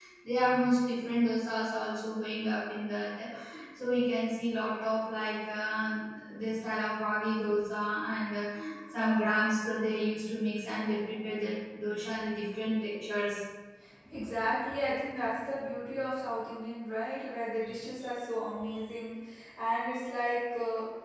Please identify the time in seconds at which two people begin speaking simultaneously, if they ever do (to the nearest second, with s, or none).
none